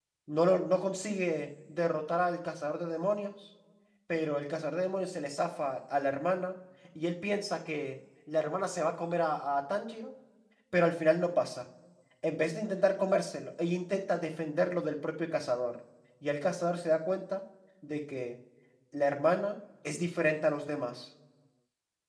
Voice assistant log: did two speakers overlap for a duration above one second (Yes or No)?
No